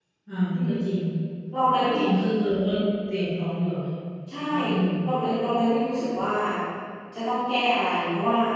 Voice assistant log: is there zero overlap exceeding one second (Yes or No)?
Yes